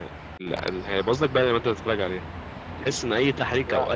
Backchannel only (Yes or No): Yes